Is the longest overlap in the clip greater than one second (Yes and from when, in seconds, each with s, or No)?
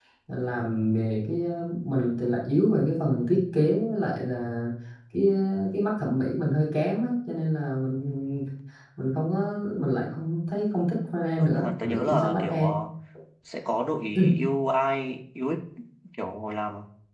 Yes, from 11.4 s